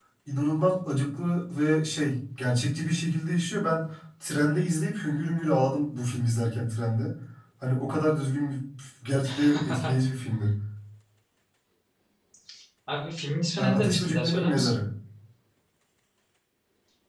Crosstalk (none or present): present